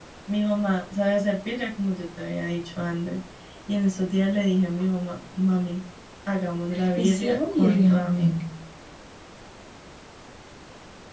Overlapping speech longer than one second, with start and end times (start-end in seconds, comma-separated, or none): 7.0-8.4